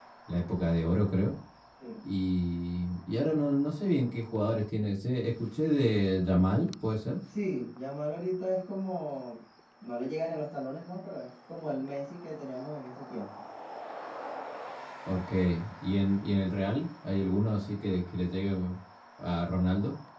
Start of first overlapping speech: none

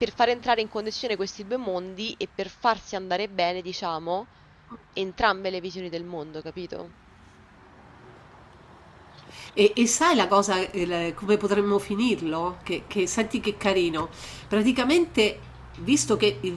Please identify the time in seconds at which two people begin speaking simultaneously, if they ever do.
none

